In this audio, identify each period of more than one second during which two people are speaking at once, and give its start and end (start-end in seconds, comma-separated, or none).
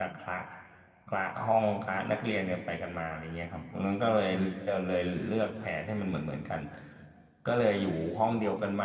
none